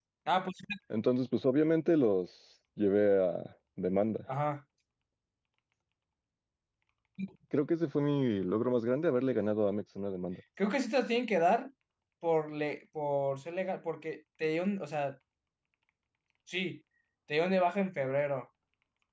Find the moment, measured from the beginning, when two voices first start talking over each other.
none

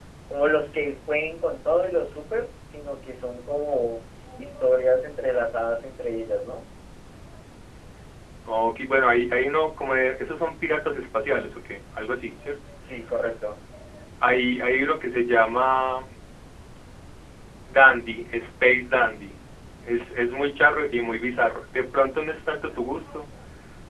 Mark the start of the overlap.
none

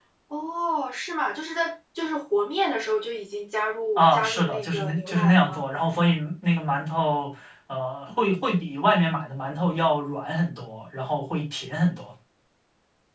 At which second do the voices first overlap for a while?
4 s

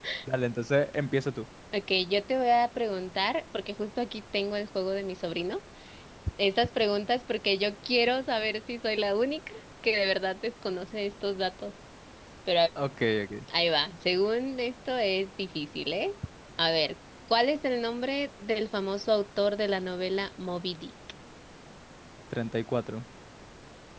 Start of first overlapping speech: none

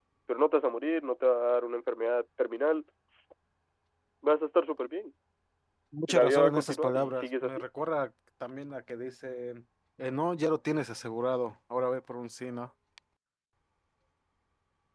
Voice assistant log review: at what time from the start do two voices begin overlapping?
6 s

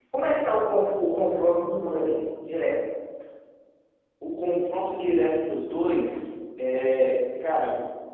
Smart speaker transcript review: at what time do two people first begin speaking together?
none

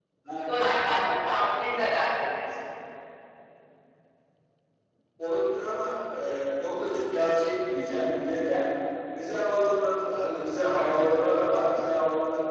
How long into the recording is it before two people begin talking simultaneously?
none

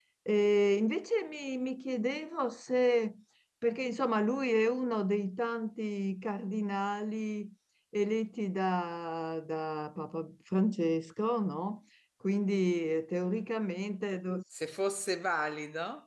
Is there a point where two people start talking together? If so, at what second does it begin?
none

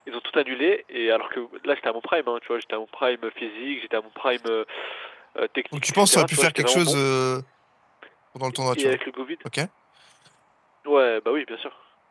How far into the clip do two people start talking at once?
6 s

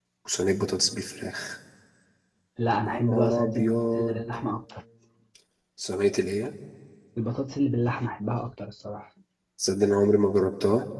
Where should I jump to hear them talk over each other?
3 s

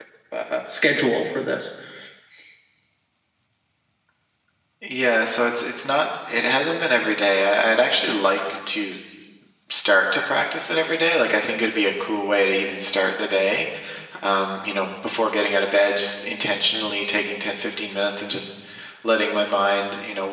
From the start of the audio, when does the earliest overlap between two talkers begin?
none

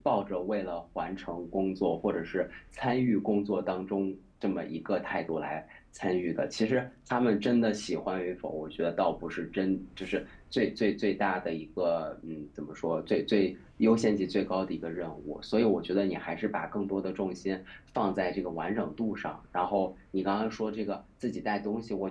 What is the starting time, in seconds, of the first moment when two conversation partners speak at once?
none

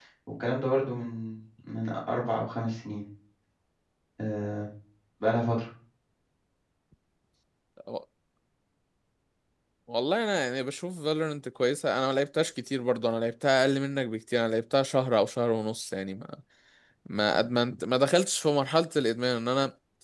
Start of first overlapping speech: none

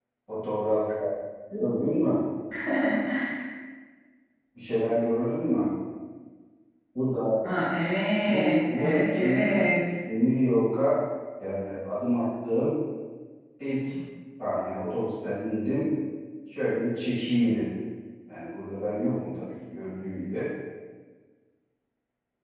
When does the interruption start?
8 s

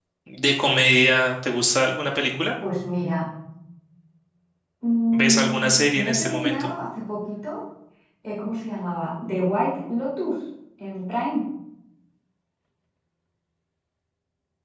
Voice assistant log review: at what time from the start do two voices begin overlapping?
5 s

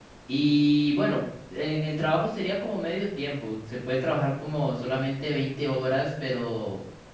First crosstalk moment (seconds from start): none

